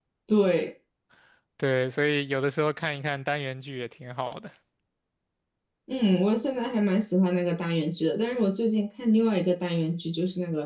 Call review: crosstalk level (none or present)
none